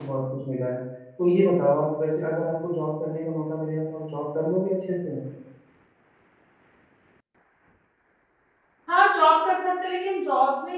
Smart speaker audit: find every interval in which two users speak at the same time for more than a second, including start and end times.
none

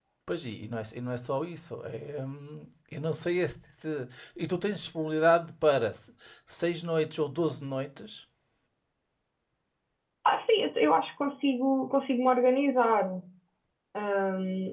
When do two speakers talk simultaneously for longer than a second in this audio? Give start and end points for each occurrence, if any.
none

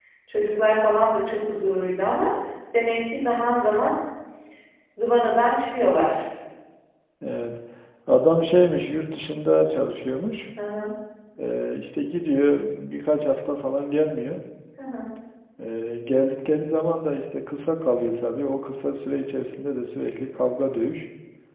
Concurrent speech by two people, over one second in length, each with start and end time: none

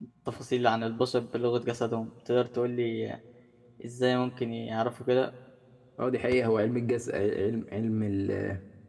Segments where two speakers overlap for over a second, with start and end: none

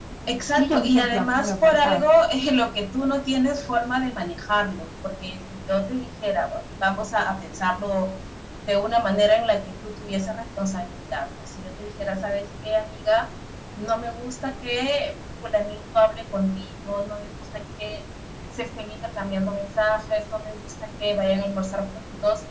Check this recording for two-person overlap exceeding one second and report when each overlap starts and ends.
0.6-2.0

